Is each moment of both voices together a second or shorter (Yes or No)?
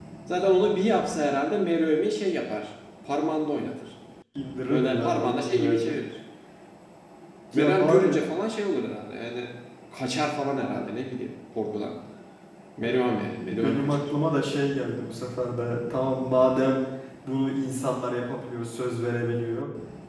No